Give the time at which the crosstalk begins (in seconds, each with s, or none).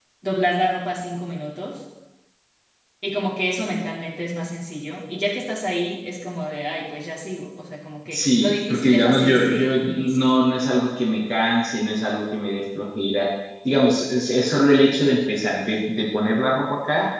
8.1 s